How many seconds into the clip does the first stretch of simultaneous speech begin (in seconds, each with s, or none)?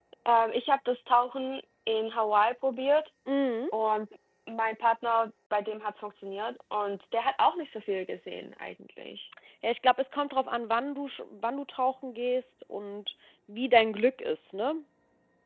none